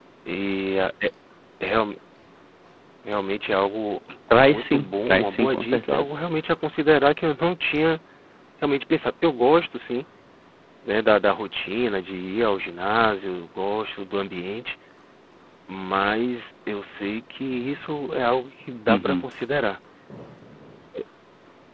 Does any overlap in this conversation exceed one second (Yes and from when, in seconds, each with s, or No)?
Yes, from 4.5 s